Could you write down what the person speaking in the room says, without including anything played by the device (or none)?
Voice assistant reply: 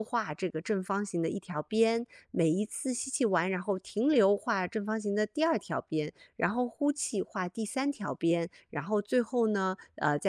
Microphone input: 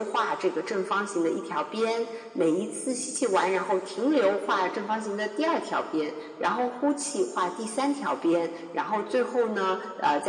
none